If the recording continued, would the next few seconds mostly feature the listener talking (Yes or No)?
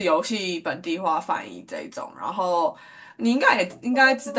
Yes